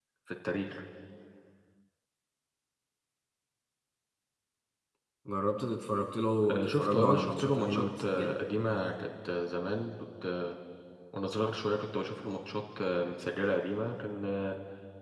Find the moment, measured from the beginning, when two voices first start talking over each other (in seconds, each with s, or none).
6.4 s